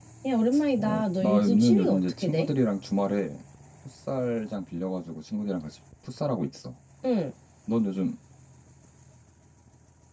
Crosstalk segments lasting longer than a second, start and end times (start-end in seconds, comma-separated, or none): 0.8-2.5